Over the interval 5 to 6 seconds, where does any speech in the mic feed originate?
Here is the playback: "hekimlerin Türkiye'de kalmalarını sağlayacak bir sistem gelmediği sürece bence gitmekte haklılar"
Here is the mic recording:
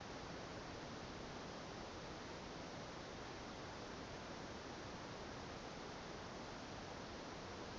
neither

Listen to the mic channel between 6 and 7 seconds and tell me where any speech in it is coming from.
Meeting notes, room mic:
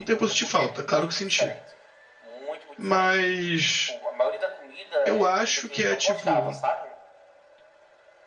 both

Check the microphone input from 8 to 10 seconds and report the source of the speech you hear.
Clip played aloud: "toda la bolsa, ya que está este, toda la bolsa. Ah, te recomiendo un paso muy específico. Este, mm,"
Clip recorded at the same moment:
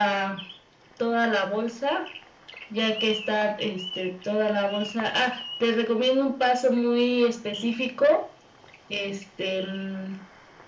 echo only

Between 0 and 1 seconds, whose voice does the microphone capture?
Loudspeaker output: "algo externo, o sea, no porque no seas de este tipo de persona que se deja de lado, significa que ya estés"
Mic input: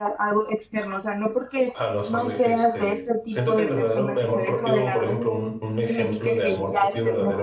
echo only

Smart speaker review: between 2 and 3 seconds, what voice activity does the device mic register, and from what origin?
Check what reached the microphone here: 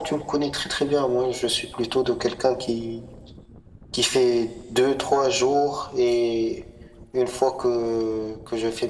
echo only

